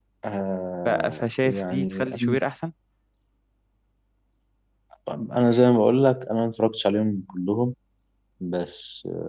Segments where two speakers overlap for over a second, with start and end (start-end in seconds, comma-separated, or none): 0.8-2.4